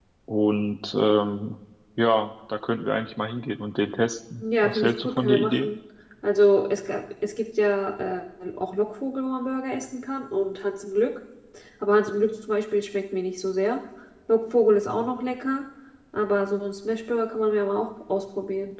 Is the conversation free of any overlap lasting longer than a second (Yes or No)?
No